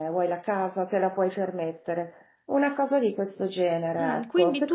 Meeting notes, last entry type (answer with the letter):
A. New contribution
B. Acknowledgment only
A